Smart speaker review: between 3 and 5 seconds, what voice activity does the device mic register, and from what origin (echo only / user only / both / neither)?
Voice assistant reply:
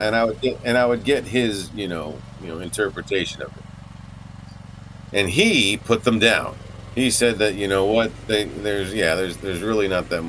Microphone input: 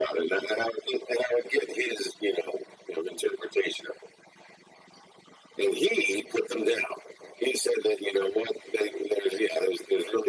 echo only